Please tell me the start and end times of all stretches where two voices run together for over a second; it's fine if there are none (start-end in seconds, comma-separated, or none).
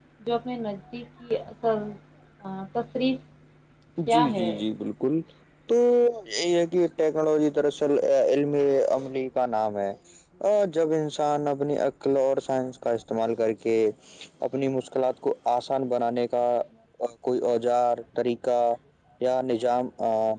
none